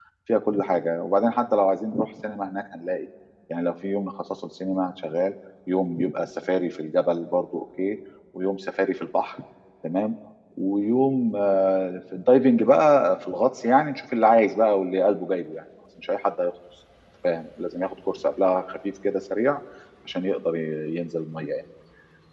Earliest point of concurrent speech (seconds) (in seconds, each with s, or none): none